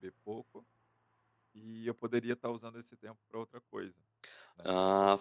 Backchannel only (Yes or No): No